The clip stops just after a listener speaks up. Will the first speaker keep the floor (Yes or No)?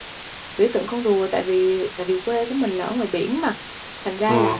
Yes